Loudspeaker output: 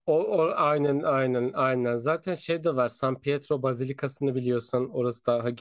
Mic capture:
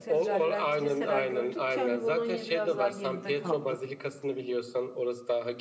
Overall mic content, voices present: both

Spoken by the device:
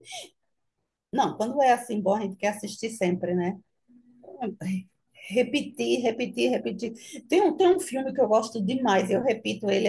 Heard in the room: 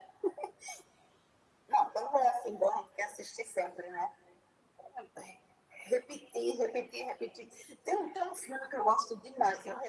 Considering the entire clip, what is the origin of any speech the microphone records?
echo only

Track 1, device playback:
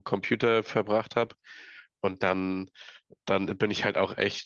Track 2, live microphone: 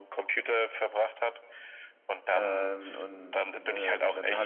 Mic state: both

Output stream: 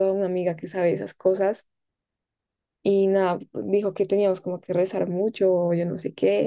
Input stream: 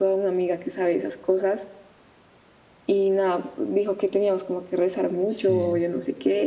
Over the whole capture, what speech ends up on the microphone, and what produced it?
both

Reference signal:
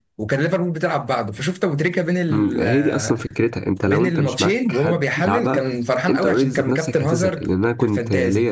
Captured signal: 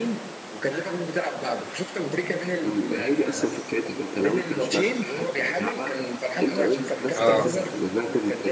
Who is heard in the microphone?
both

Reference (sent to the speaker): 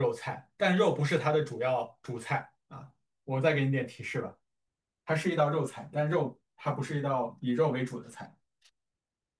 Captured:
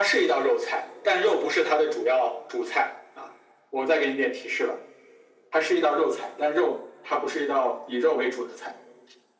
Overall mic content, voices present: echo only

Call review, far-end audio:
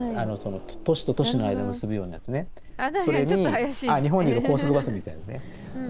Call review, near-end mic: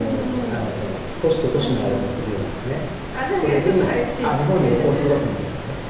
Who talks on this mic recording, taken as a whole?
echo only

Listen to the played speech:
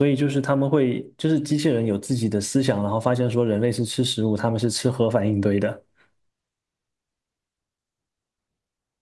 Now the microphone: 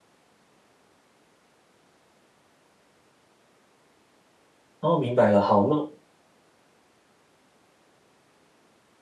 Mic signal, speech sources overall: user only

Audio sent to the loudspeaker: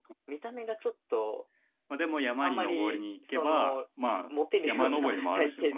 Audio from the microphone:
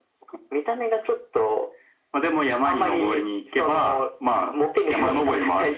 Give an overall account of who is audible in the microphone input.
echo only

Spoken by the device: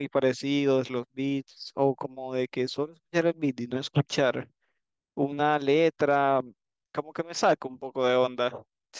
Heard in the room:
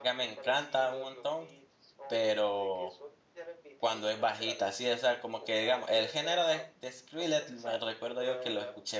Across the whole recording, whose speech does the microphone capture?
both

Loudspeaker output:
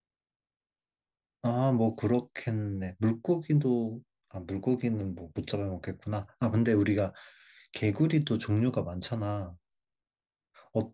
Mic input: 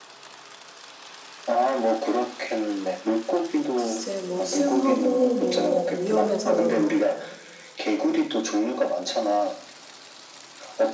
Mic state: both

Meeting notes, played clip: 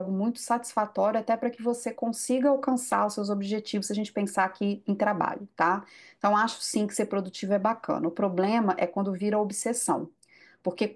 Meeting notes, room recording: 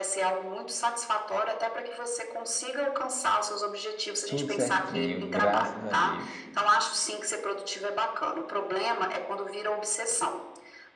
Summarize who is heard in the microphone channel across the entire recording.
both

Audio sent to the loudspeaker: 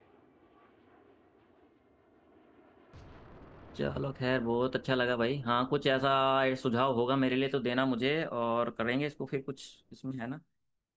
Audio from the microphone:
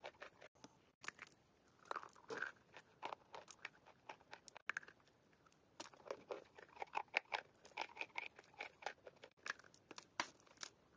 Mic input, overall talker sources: neither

